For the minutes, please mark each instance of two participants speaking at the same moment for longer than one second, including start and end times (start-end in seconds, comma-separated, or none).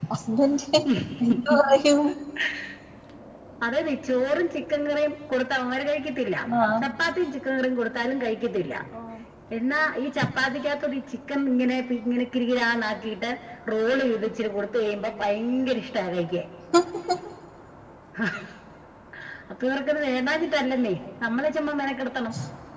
none